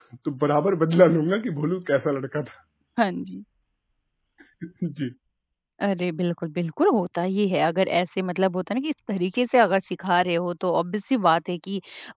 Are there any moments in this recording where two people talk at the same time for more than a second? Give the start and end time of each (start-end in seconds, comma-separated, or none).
none